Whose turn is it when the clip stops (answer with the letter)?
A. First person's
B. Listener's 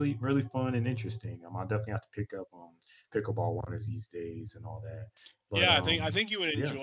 B